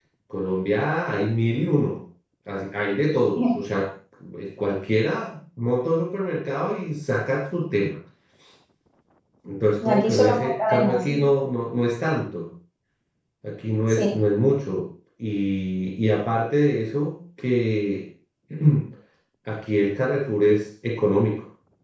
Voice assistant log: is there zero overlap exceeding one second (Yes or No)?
No